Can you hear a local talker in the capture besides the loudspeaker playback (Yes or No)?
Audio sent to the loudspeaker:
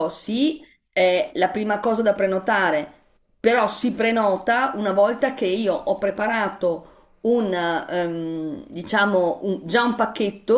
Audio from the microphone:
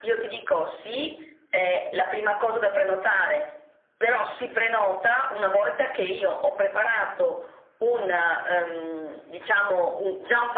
No